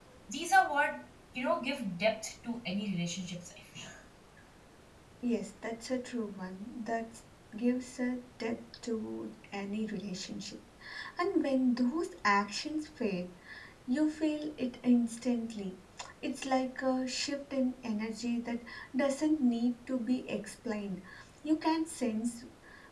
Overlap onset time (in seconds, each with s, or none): none